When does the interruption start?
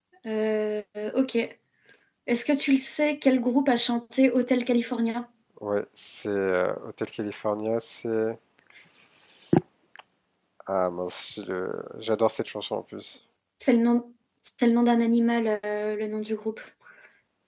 none

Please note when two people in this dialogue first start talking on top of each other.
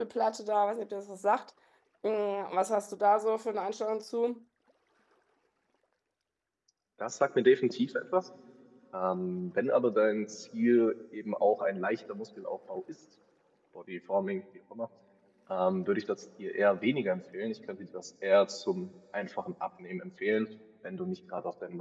none

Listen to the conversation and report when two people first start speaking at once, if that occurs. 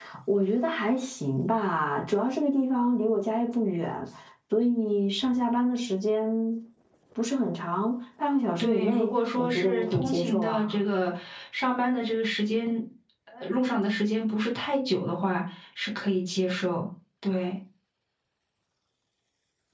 8.6 s

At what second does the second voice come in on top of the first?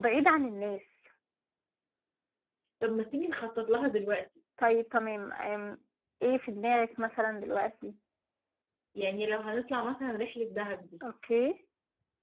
none

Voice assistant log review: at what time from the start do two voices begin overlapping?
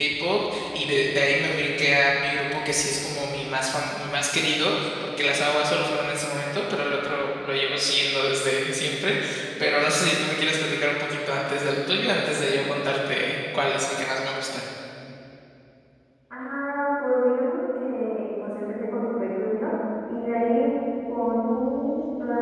none

